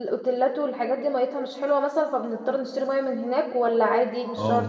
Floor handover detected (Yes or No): Yes